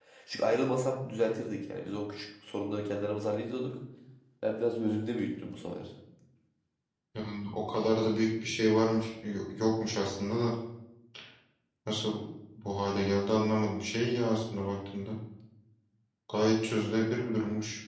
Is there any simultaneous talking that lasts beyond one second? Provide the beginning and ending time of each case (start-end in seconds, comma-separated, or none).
none